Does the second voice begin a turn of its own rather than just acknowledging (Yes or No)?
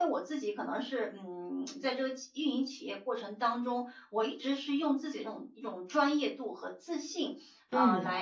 No